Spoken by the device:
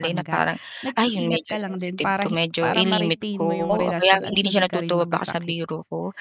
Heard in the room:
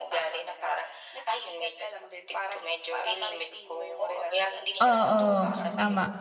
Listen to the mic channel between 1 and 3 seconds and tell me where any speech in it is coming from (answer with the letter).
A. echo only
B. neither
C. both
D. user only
A